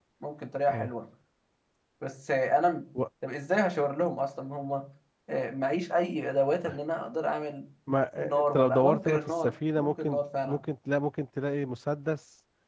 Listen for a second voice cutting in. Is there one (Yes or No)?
Yes